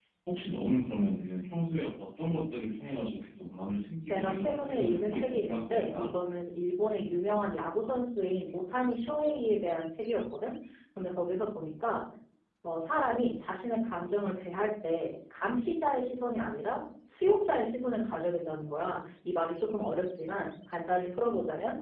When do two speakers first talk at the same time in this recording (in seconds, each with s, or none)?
4.1 s